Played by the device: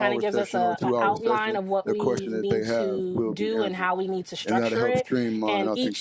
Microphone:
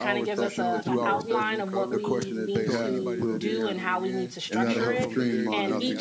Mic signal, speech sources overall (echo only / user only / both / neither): both